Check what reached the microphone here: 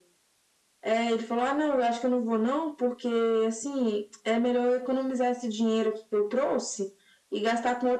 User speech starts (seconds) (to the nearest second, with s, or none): none